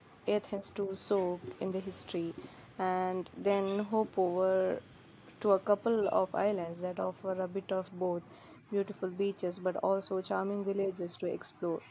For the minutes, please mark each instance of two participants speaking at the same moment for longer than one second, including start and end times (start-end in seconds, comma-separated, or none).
none